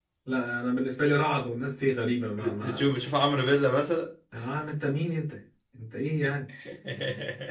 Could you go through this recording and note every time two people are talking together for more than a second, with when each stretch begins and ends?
none

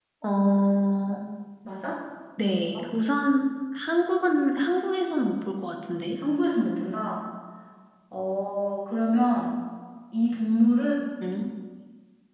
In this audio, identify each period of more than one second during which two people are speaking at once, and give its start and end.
none

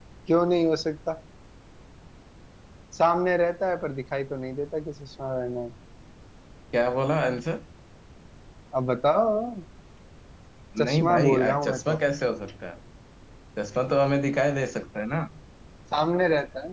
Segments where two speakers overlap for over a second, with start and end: 10.8-12.0

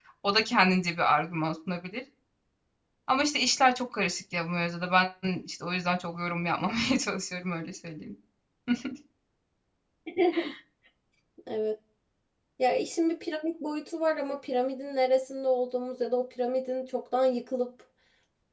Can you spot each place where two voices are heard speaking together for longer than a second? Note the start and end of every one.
none

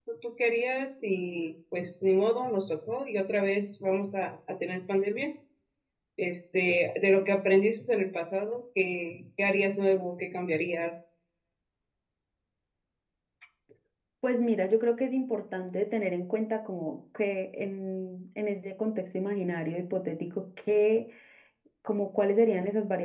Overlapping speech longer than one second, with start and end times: none

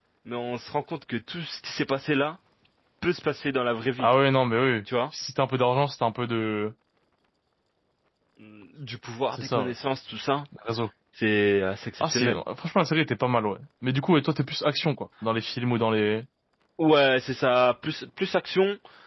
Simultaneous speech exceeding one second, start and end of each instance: none

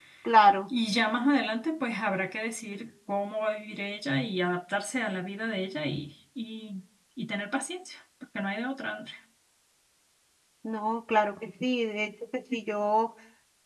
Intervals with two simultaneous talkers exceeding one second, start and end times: none

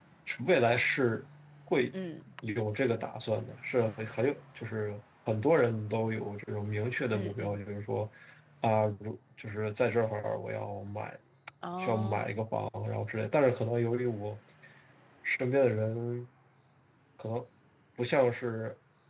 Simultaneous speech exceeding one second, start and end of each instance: none

